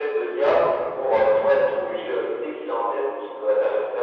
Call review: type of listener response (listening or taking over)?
listening